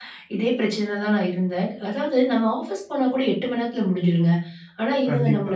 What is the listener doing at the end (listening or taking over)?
listening